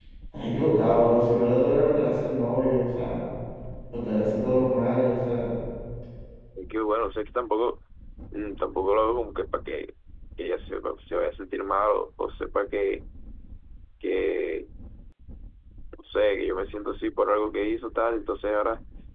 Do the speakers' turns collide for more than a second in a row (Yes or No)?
No